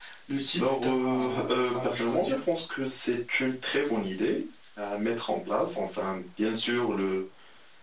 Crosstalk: present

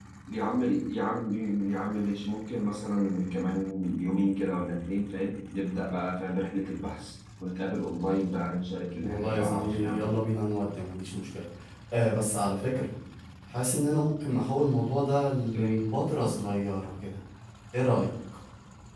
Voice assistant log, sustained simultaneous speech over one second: present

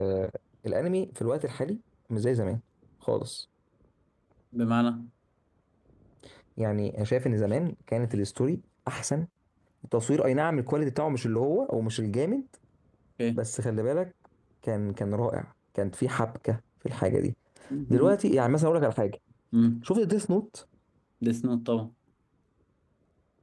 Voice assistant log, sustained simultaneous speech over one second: none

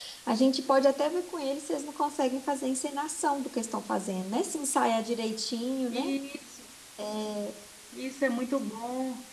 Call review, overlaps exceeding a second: none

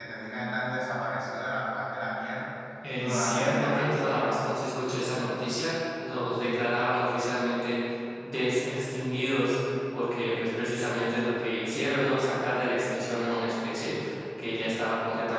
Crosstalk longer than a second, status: present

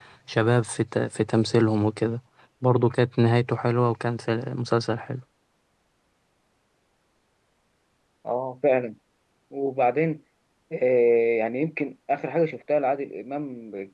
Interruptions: none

